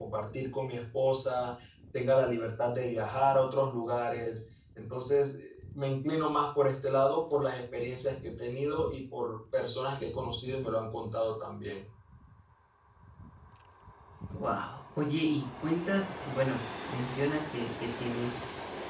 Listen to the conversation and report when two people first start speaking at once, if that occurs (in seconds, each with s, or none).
none